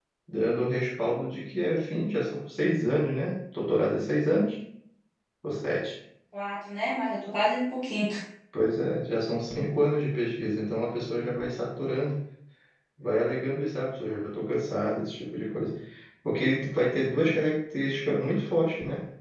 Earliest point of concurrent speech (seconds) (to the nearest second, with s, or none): none